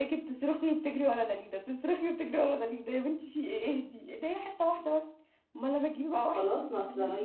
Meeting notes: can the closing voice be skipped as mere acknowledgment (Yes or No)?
No